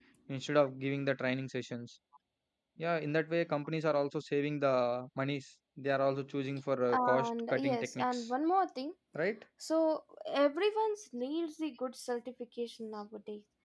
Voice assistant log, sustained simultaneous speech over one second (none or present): present